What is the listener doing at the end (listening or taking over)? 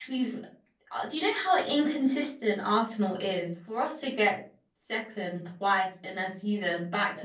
taking over